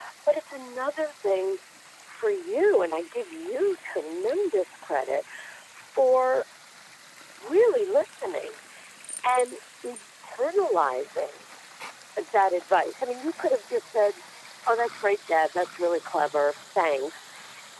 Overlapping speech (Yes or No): No